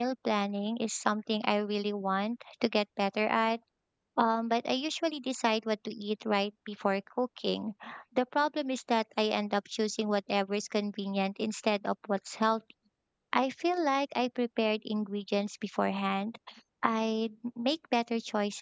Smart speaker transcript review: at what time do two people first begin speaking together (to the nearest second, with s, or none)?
none